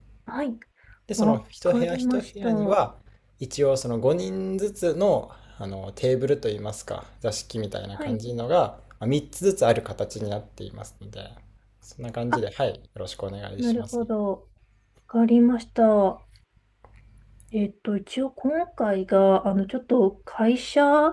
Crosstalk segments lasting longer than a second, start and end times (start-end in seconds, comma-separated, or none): 1.2-2.8